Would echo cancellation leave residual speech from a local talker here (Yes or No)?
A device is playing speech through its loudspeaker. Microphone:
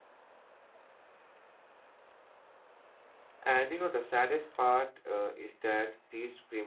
Yes